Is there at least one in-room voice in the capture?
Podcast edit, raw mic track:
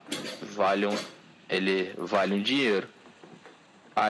No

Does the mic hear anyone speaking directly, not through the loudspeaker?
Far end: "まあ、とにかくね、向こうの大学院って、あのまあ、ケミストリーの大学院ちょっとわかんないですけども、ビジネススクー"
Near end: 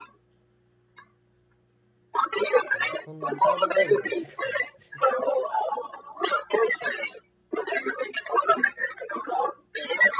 Yes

